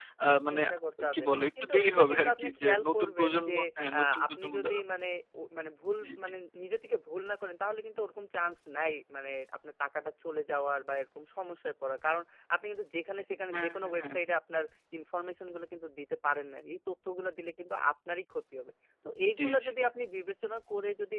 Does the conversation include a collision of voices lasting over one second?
Yes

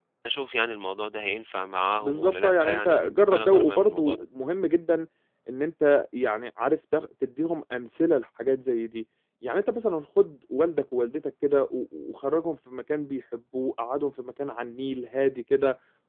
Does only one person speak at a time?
No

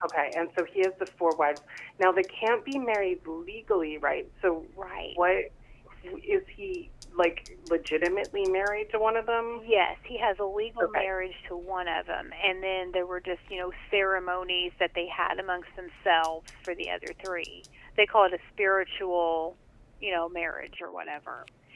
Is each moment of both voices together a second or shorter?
Yes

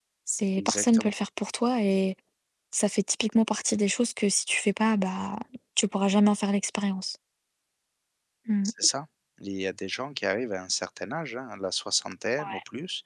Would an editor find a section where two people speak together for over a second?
No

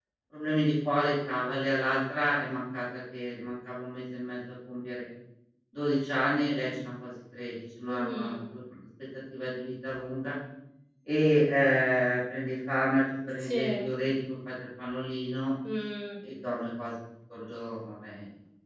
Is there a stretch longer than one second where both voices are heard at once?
No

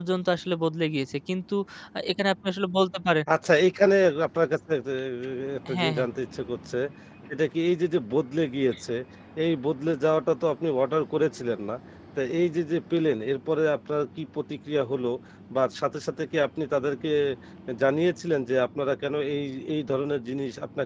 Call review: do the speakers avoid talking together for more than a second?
Yes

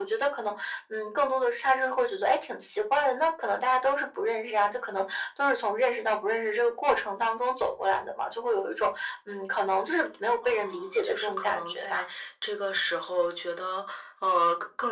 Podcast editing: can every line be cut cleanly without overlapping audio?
No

